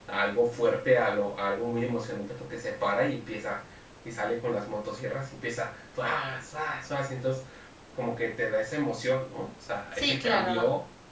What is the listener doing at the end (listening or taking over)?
taking over